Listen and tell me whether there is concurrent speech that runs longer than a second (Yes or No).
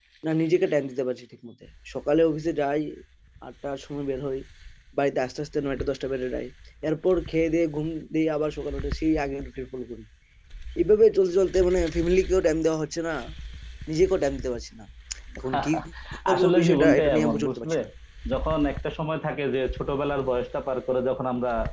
Yes